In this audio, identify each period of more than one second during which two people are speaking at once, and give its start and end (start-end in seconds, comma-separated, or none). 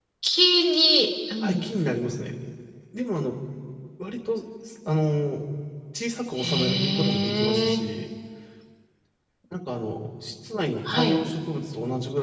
6.4-7.8